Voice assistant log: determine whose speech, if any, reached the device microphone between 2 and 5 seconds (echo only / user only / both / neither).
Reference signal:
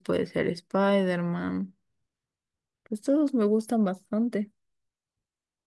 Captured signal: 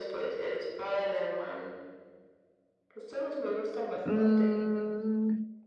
both